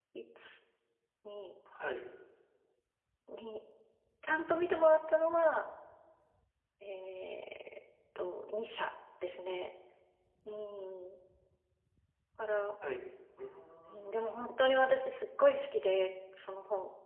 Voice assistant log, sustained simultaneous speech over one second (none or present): none